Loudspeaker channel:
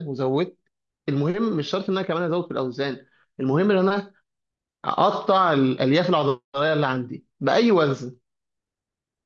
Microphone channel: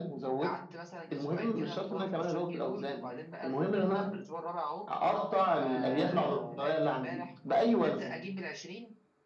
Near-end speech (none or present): present